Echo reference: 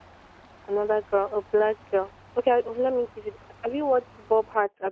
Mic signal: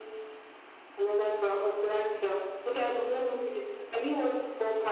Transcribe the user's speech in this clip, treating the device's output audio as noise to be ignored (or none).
none